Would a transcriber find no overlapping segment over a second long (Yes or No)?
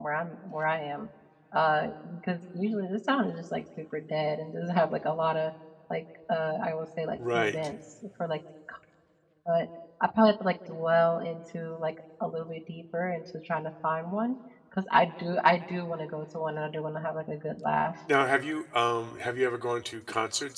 Yes